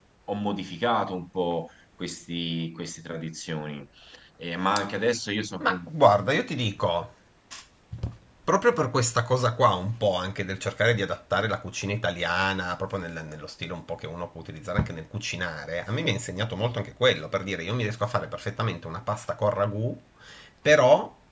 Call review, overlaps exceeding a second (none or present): none